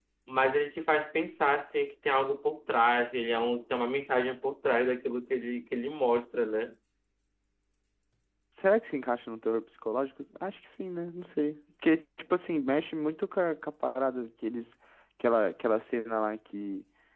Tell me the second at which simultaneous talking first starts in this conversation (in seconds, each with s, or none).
none